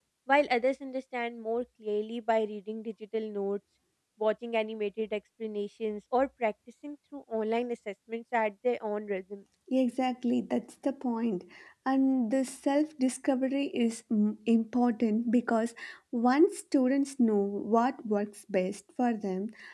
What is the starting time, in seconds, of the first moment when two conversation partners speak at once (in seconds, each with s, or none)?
none